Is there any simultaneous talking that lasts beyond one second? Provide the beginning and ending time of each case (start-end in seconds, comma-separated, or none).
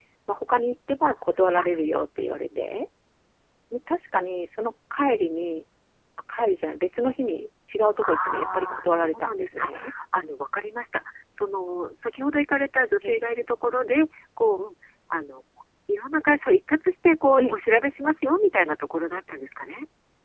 8.1-9.7